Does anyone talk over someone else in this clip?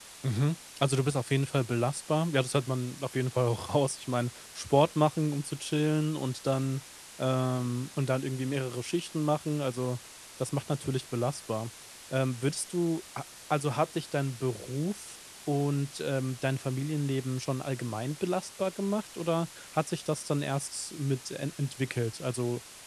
No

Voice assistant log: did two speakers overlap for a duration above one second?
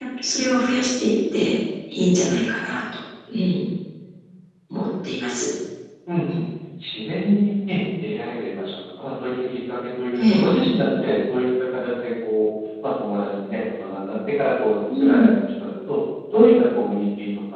No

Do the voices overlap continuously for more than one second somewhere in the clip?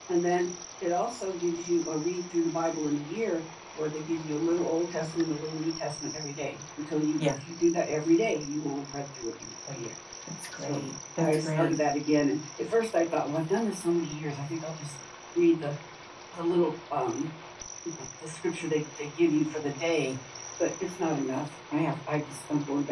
No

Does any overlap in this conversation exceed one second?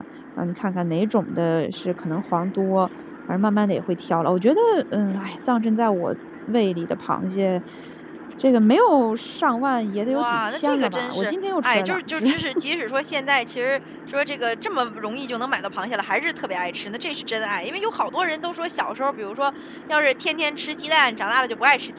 Yes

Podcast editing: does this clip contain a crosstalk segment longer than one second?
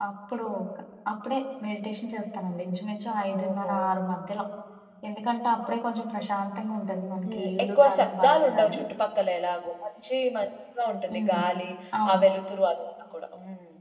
Yes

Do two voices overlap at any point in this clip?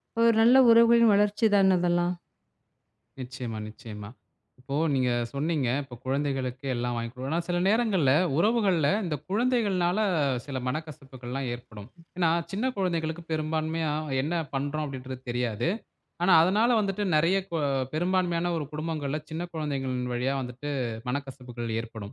No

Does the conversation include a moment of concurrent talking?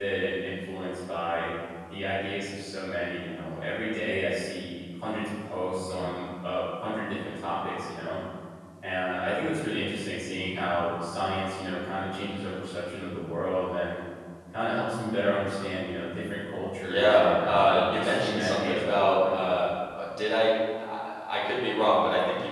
Yes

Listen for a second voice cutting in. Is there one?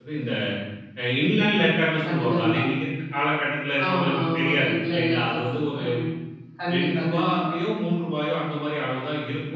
Yes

